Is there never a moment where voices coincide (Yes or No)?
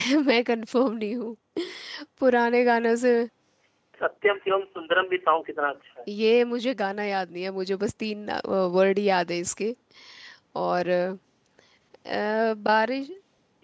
Yes